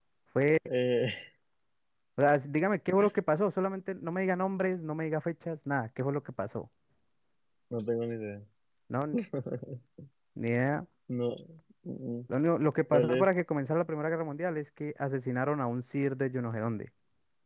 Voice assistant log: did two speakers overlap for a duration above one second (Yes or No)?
No